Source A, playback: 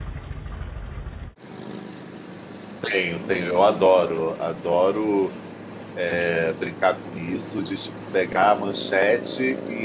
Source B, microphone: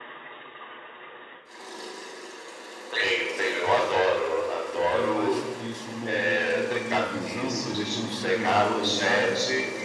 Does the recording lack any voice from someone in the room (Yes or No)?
No